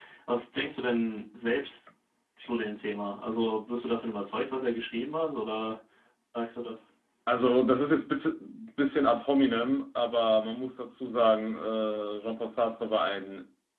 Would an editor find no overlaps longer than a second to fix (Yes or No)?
Yes